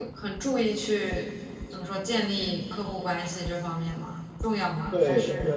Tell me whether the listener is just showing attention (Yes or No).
No